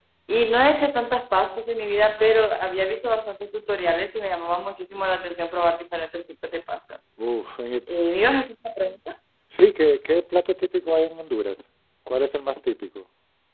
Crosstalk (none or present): none